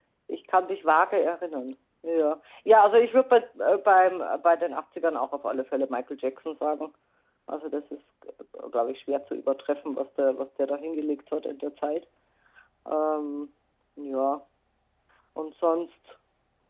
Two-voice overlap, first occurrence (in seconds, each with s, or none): none